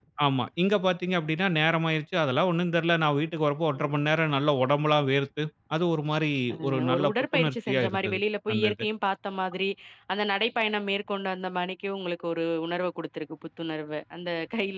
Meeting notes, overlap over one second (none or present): present